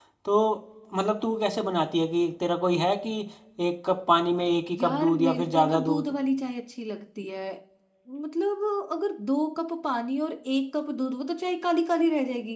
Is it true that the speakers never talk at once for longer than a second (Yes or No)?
No